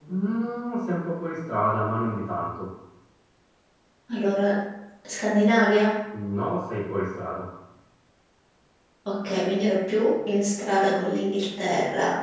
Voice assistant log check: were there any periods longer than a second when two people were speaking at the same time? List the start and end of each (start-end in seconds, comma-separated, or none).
none